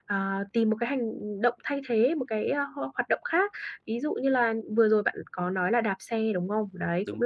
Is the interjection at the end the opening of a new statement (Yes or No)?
No